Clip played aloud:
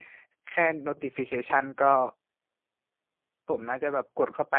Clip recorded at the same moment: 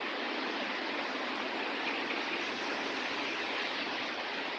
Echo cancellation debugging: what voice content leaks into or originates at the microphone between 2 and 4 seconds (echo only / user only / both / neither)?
neither